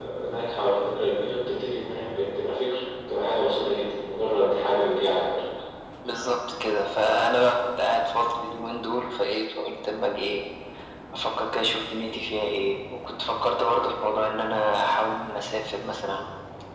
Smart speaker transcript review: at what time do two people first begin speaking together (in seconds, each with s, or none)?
none